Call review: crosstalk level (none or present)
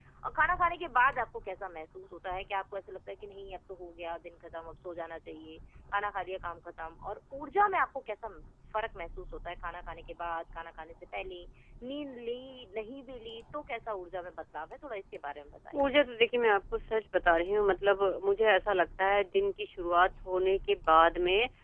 none